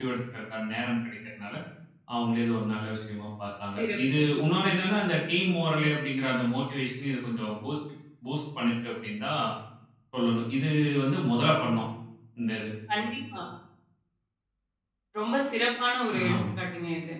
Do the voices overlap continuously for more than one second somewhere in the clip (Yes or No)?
No